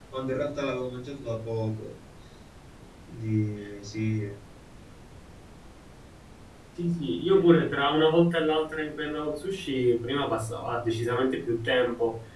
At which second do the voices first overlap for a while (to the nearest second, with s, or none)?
none